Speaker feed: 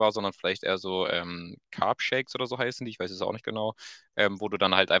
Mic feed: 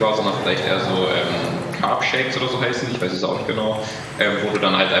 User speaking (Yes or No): No